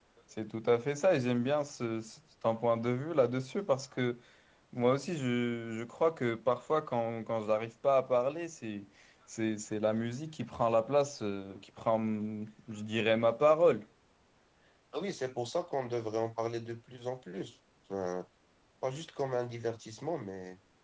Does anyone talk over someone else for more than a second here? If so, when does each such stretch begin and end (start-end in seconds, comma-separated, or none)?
none